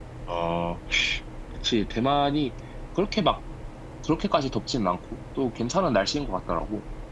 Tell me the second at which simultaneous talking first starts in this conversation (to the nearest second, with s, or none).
none